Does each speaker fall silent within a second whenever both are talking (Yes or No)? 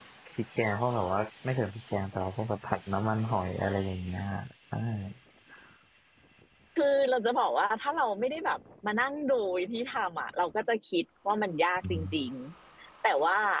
Yes